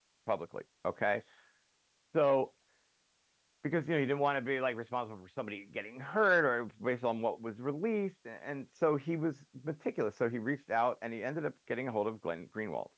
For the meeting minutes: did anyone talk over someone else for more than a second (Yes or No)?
No